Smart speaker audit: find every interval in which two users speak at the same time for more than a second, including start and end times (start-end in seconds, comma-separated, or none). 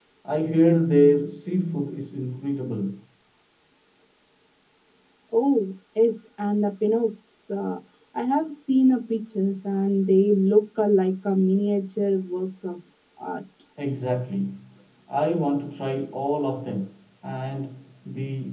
none